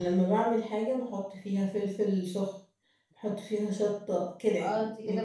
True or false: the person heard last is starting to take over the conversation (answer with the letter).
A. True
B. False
A